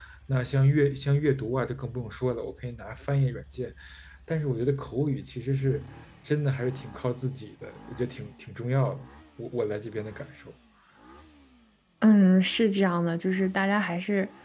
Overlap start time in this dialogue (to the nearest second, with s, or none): none